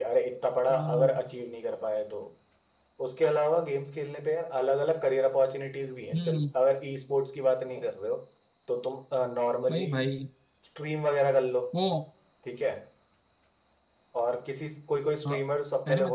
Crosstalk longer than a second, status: none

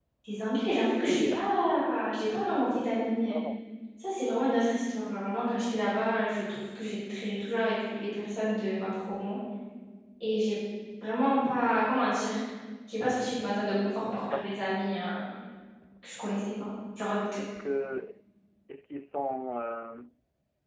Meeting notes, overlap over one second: none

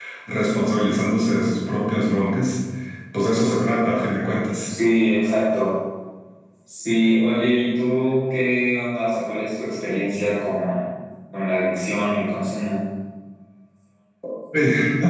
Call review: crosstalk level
none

